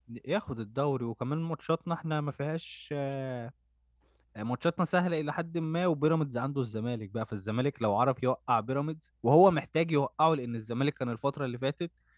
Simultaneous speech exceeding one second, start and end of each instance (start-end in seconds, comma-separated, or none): none